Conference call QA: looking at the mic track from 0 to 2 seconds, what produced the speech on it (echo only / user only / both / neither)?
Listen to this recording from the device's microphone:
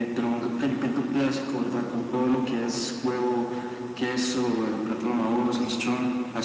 echo only